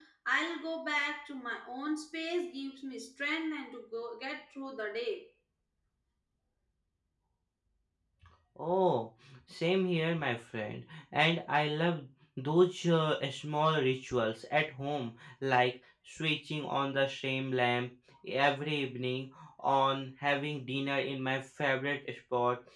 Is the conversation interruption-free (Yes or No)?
Yes